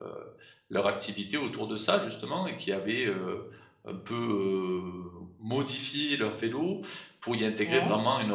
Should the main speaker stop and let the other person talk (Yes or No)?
No